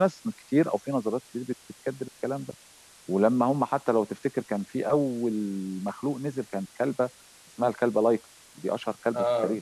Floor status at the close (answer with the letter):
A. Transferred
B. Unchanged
B